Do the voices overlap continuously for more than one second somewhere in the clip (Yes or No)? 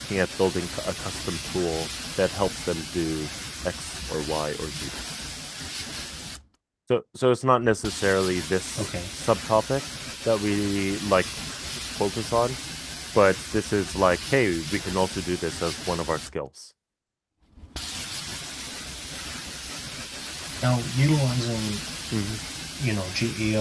No